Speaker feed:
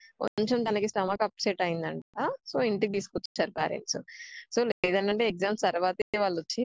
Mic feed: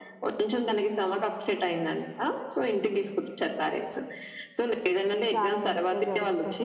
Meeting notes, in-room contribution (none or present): present